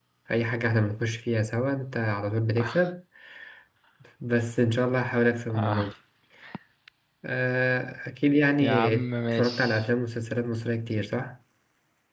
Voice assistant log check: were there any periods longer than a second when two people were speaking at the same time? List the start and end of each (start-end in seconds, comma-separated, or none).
8.6-9.8